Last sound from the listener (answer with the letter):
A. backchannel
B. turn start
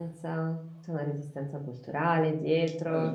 B